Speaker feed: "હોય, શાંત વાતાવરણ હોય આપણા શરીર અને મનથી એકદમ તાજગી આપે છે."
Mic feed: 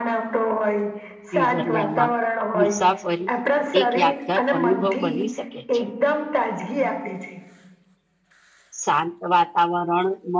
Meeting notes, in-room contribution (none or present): present